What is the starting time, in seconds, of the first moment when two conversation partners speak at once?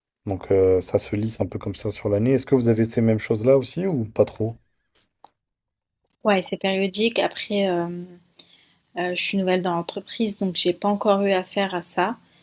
none

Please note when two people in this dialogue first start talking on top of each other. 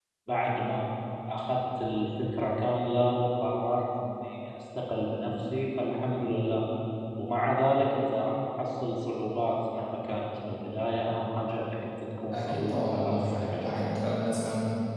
12.3 s

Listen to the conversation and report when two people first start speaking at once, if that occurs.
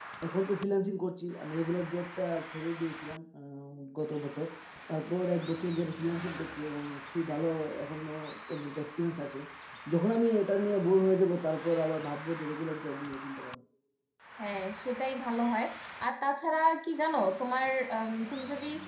none

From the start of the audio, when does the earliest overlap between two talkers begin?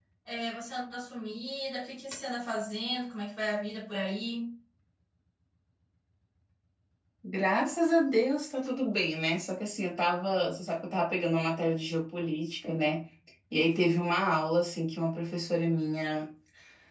none

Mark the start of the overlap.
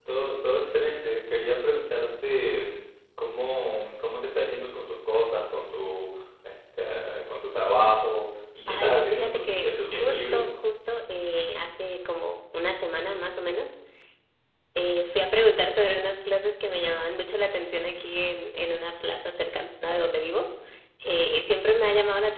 8.7 s

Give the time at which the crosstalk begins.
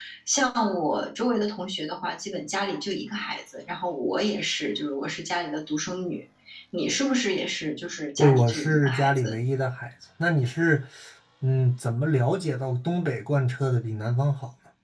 8.2 s

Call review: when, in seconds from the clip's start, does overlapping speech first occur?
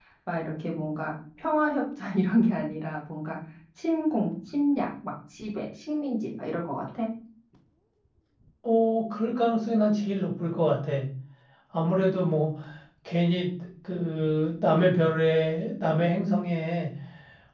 none

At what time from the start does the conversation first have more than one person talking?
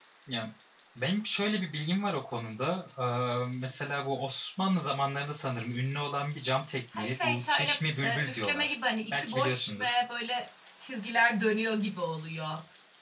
6.9 s

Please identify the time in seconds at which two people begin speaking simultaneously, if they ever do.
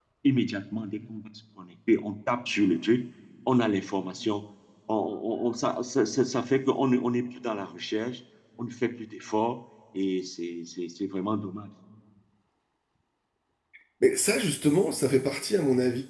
none

